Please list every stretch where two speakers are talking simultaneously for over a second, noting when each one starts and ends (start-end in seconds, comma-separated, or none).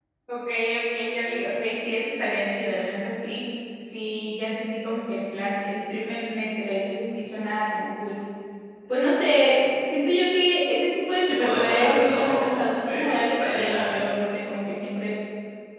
11.3-14.0